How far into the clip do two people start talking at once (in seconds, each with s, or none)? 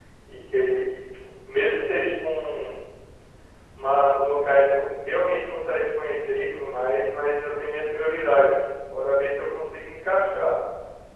none